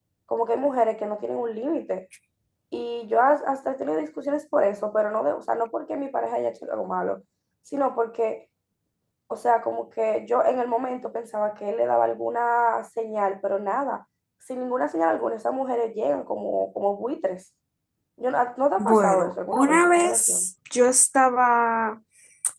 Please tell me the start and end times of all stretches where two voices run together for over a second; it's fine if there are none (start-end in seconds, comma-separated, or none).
18.8-20.5